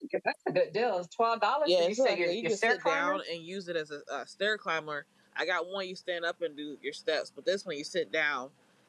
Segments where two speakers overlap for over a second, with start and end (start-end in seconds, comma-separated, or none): 1.6-3.2